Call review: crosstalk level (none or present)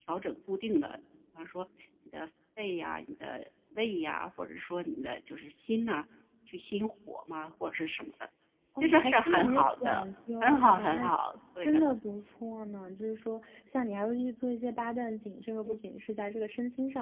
present